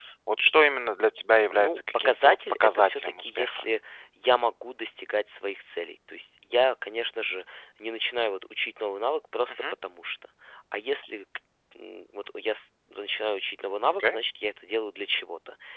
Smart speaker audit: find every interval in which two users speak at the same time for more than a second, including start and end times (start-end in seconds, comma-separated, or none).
1.5-3.6